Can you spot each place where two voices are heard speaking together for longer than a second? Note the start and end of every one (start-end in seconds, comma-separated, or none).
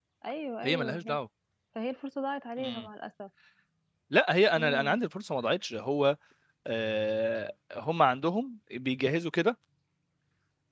none